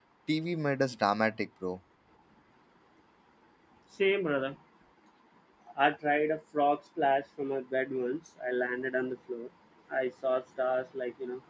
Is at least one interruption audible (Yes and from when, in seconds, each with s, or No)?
No